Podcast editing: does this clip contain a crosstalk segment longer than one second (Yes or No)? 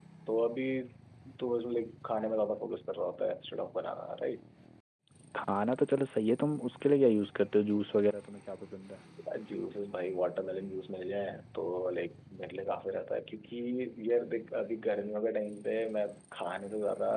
No